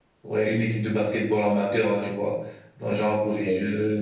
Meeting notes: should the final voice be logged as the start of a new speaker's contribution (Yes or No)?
No